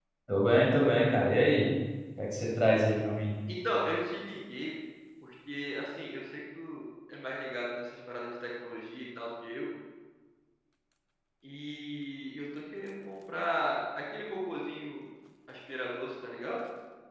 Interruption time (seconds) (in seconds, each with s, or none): none